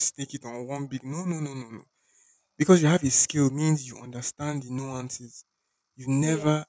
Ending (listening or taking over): listening